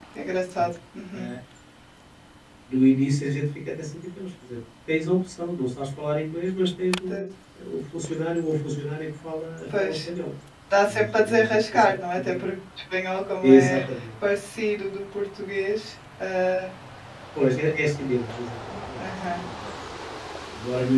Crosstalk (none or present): present